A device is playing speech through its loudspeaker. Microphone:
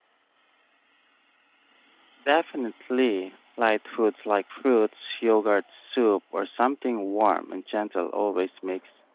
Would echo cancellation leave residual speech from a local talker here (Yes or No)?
Yes